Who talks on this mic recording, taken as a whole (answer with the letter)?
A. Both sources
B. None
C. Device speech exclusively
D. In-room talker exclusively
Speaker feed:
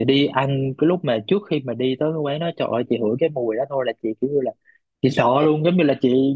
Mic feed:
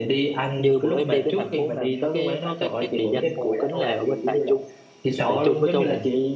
A